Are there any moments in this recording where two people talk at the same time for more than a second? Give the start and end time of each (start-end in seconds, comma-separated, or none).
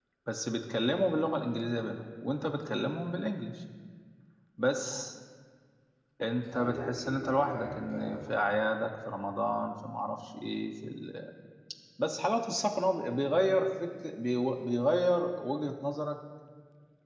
6.5-8.2